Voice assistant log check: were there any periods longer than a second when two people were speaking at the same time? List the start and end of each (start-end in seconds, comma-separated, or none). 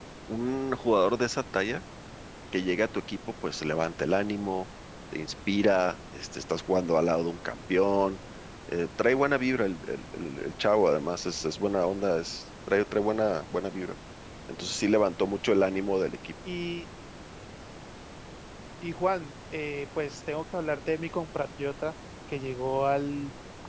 none